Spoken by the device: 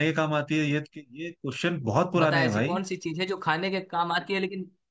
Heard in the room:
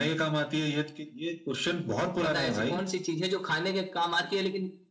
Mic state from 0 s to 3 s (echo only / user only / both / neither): echo only